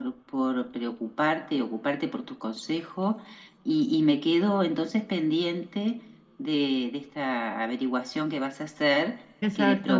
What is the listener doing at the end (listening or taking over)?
listening